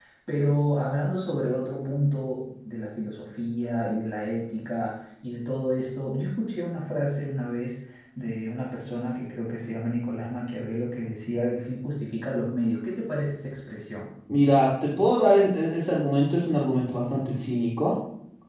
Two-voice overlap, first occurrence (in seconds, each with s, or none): none